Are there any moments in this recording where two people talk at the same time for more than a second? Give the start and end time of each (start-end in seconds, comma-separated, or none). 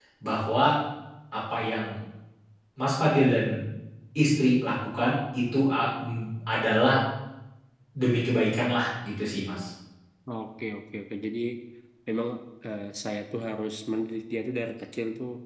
none